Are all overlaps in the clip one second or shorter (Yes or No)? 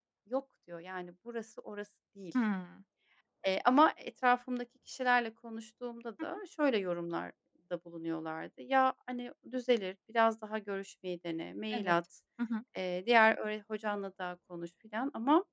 Yes